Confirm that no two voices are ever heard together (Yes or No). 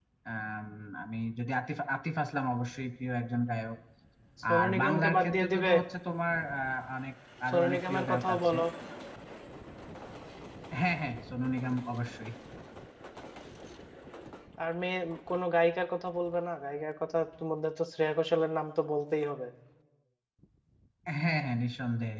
No